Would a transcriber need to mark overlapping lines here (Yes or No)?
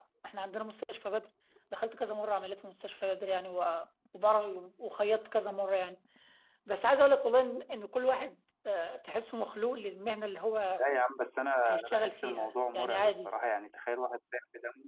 Yes